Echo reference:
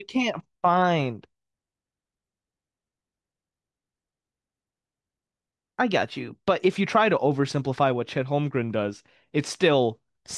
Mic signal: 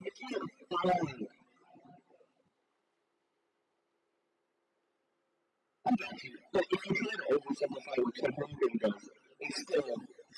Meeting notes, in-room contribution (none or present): none